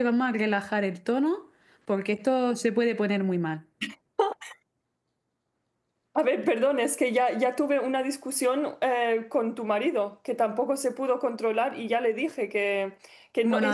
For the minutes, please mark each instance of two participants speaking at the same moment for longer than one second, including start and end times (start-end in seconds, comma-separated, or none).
none